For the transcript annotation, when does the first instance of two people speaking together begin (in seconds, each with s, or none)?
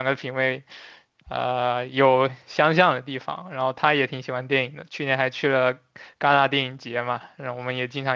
none